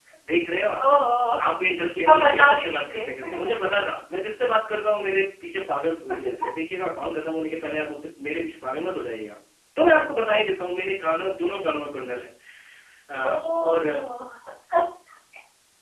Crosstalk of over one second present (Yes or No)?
Yes